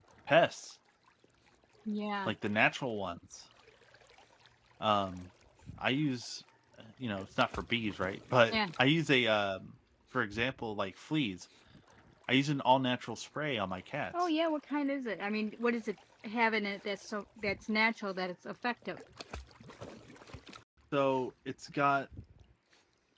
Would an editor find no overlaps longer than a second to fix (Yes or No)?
Yes